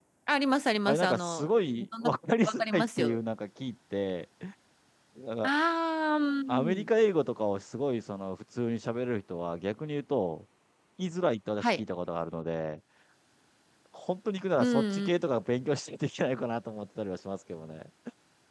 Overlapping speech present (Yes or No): Yes